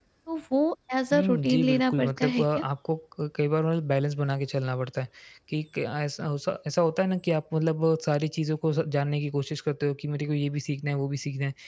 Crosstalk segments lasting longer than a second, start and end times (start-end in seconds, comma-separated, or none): 1.1-2.5